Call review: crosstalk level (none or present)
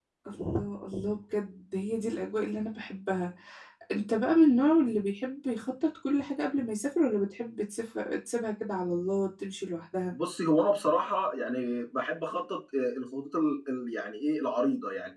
none